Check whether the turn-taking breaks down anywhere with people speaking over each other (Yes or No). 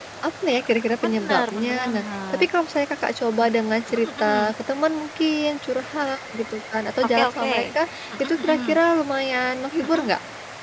Yes